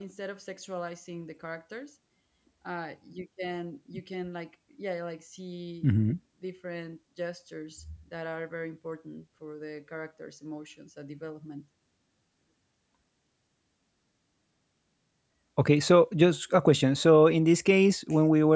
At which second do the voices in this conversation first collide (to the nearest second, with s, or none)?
none